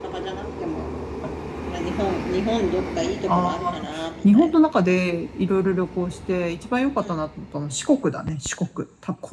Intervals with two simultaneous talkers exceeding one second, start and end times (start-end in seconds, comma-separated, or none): 3.2-4.6